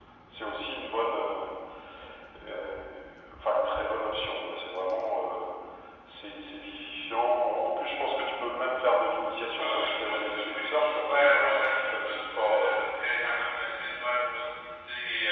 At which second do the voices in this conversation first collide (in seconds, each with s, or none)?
9.6 s